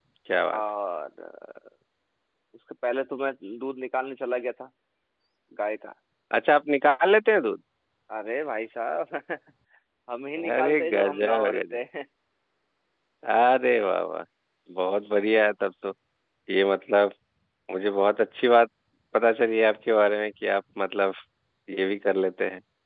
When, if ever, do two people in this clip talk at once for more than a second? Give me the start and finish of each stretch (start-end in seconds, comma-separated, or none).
10.5-11.8